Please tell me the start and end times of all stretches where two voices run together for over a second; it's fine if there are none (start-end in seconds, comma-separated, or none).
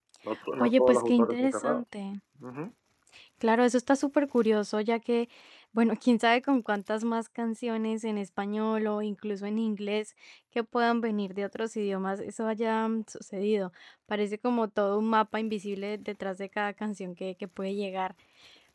0.6-1.8